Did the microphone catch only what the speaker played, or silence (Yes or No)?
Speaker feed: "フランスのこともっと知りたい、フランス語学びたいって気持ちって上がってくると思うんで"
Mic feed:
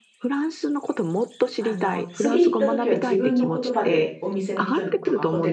No